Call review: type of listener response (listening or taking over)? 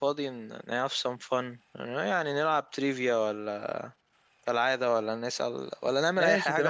taking over